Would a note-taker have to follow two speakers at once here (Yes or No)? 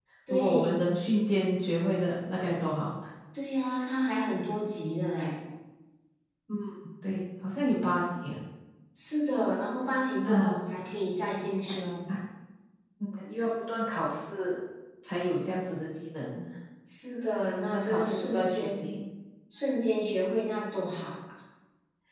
Yes